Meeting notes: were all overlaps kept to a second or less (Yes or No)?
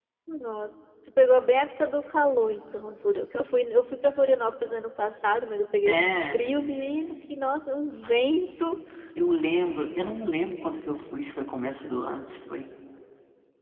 Yes